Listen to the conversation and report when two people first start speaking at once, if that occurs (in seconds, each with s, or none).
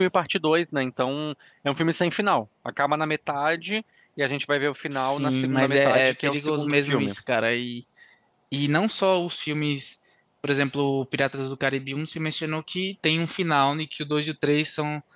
4.9 s